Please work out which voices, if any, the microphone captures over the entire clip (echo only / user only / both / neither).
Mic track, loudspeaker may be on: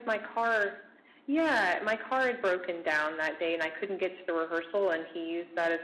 echo only